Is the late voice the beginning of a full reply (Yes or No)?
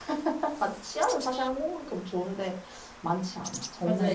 Yes